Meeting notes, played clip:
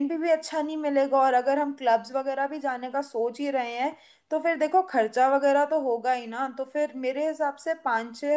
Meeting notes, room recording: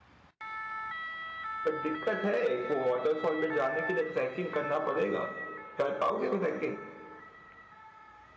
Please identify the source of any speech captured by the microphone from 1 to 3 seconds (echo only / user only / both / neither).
user only